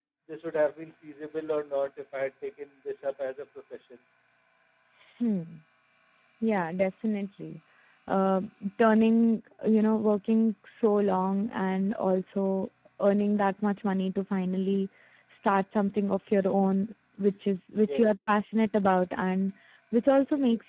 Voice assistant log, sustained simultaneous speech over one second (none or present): none